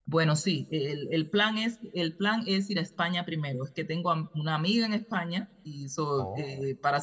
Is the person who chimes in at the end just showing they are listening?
Yes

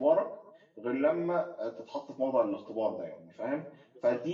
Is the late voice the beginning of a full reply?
No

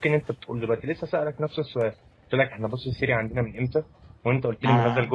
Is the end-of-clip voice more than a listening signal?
No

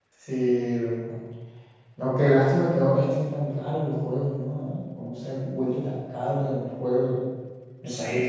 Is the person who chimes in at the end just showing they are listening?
No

